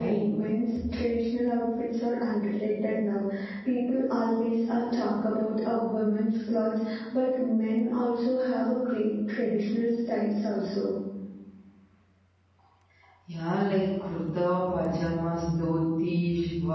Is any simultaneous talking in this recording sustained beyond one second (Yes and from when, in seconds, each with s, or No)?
No